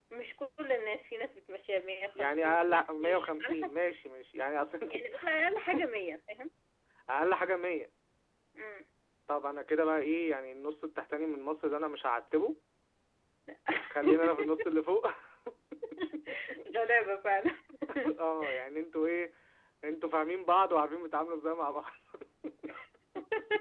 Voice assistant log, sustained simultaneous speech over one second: present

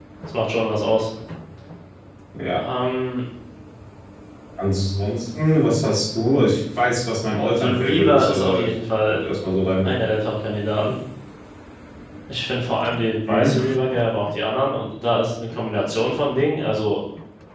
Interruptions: present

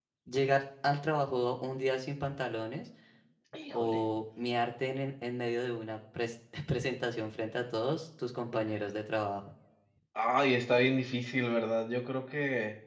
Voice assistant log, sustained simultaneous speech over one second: none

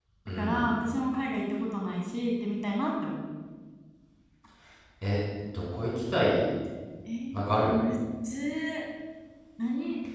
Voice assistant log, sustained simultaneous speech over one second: none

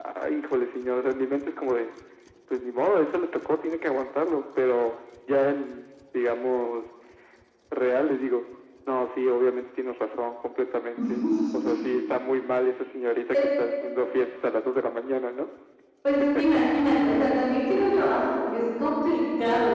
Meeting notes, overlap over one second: none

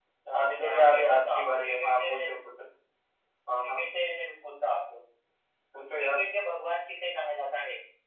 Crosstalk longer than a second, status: present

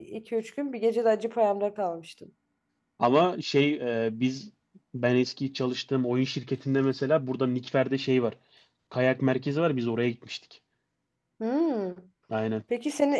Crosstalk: none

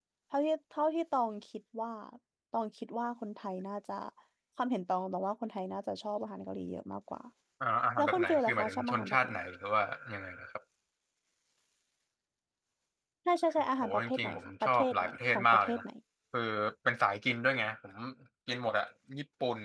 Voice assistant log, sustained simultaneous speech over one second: present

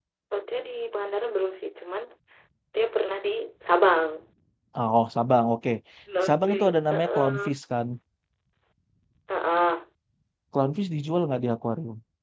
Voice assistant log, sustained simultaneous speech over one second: present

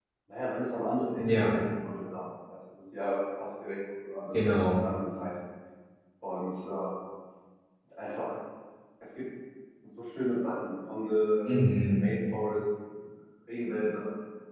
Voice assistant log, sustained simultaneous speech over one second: none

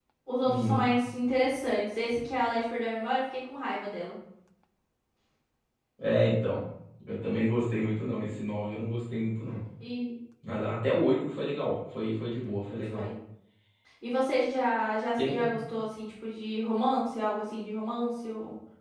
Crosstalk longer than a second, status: none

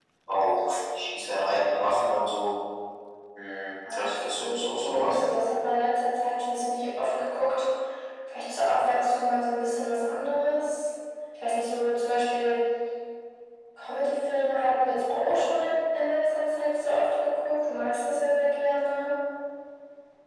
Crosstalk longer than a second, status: present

